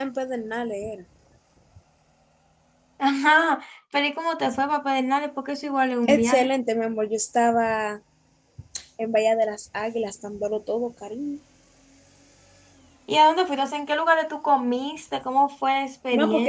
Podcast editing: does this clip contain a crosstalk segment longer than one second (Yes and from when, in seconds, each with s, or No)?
No